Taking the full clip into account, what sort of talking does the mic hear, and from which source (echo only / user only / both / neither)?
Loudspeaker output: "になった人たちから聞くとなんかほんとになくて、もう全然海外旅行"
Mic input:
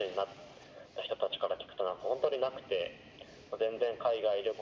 echo only